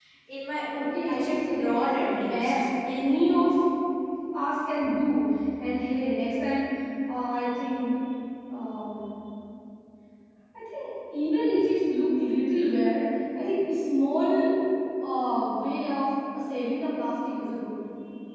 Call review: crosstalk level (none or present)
present